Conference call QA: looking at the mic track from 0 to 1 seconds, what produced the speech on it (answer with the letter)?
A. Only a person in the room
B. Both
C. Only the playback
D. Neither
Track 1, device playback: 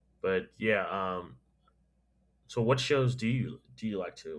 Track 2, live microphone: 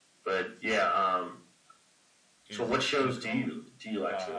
C